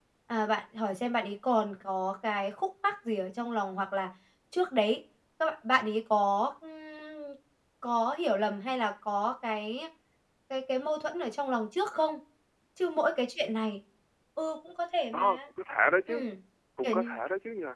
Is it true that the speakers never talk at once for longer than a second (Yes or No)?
Yes